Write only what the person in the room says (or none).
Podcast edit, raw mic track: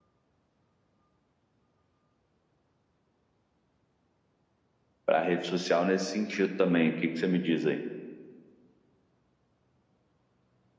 a rede social nesse sentido também. O que, que você me diz aí?